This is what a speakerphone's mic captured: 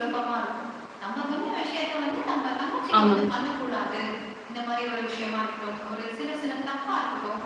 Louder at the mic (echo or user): user